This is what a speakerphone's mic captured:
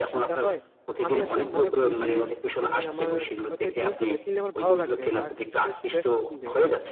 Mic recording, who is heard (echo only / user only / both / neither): both